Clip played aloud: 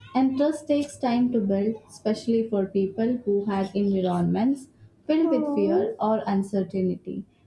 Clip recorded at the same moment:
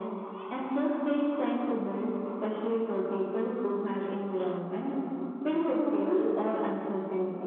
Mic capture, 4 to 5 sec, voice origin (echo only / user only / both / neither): echo only